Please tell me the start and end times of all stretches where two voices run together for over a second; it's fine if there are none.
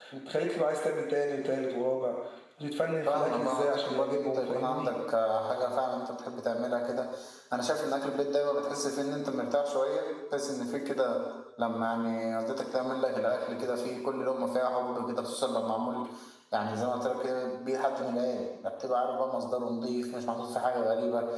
3.1-4.9

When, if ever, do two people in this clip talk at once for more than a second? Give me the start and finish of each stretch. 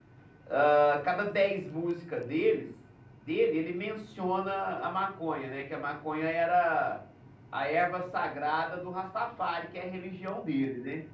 none

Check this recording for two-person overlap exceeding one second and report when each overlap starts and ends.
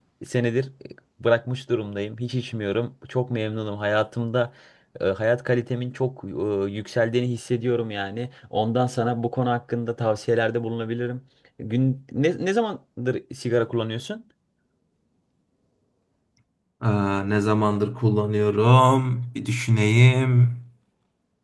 none

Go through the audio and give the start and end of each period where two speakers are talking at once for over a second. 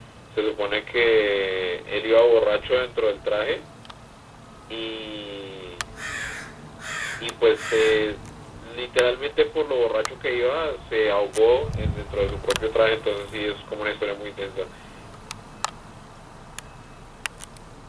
none

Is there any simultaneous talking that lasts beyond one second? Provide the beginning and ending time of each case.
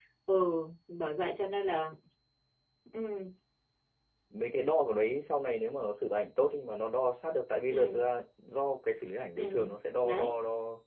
none

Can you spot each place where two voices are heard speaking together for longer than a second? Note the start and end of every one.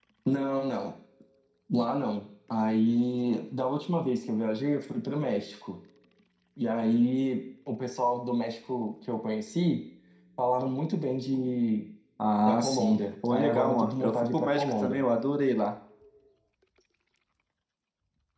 12.4-15.0

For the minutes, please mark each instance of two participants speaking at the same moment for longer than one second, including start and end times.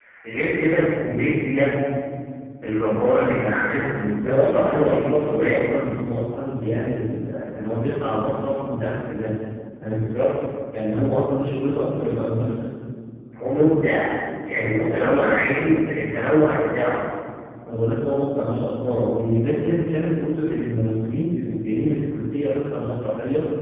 4.2-5.6, 14.5-15.7

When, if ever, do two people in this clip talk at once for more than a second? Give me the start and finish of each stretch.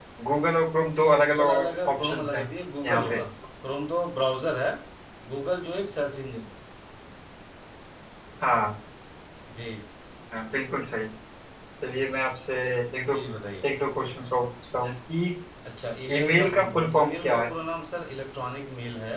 1.0-2.4, 16.1-17.4

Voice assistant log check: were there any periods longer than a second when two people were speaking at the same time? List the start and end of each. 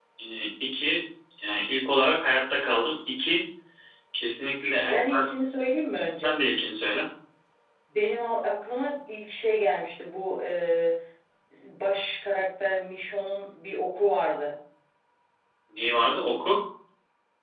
none

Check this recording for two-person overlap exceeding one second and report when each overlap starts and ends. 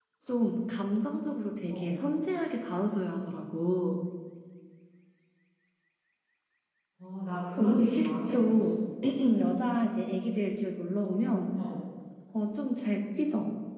7.6-8.8

